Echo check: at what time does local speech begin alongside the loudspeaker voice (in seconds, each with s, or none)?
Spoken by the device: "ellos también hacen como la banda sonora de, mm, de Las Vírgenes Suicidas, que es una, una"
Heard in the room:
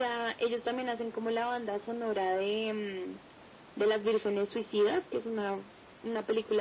none